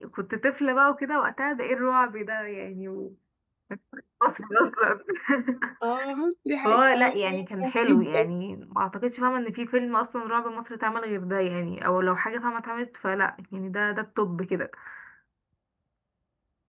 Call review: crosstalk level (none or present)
present